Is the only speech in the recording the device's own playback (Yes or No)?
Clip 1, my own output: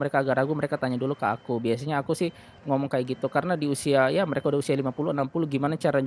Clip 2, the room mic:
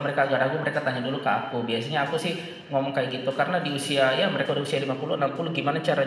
Yes